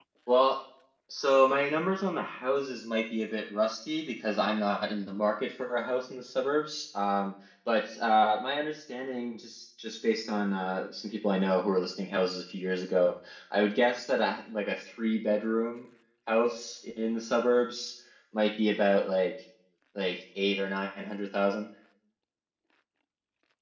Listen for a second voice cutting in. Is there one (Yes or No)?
No